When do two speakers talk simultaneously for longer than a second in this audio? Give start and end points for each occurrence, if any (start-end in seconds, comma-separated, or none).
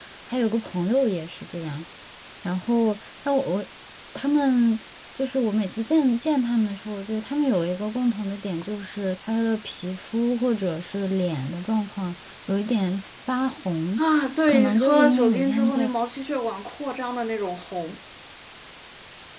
14.5-15.9